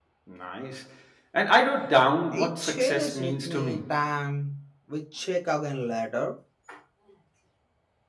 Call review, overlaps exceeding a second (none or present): present